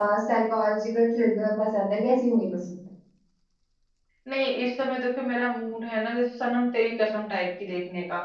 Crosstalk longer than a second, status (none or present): none